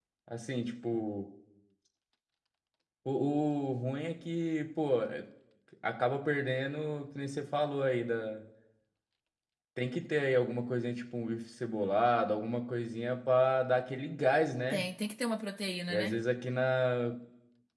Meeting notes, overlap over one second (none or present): none